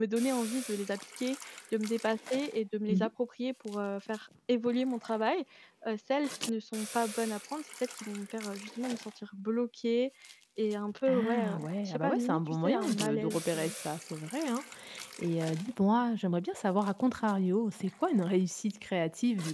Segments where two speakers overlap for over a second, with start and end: 11.1-13.7

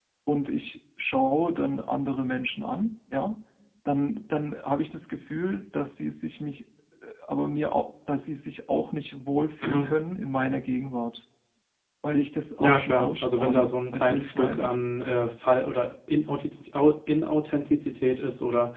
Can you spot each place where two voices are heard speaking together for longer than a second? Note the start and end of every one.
12.6-14.7

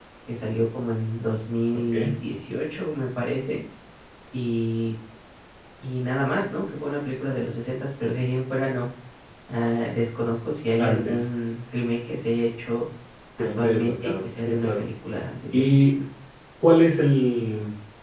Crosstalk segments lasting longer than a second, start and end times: 13.6-14.8

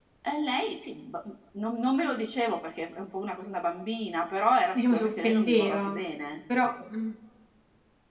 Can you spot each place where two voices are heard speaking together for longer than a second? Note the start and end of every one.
4.7-6.0

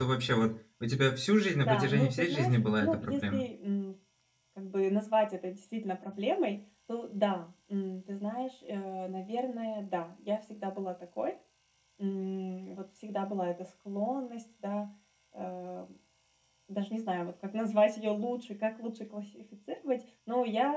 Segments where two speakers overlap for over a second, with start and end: 1.7-3.4

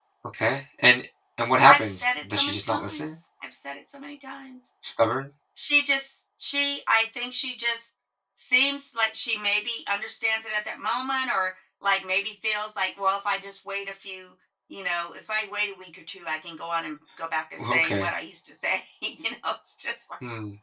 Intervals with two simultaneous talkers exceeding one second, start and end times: 1.7-3.1

